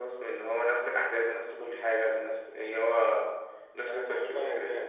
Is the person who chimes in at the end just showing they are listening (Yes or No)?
No